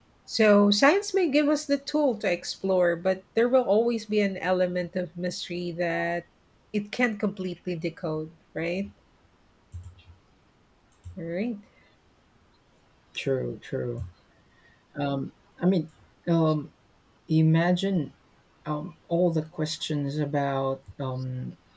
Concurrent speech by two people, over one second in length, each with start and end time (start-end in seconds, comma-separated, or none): none